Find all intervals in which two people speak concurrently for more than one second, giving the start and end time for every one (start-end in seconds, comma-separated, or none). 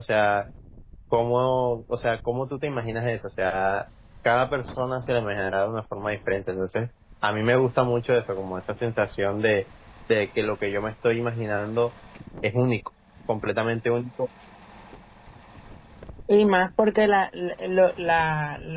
none